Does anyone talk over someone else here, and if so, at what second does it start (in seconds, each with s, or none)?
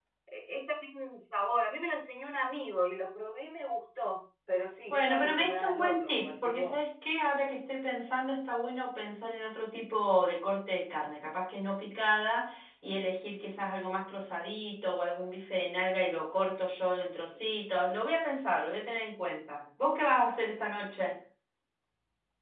4.9 s